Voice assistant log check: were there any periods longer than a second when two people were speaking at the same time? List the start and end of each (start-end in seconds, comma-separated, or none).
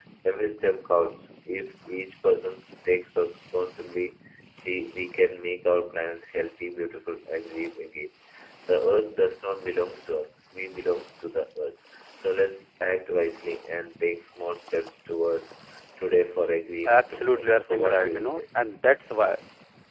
16.9-18.4